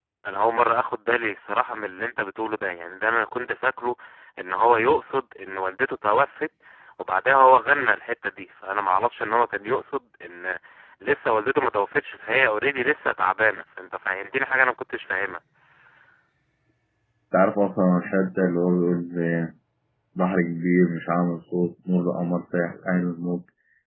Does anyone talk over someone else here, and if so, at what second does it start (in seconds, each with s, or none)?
none